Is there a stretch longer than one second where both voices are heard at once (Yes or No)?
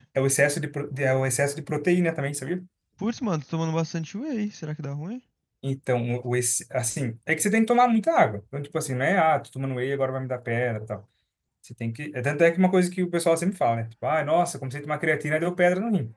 No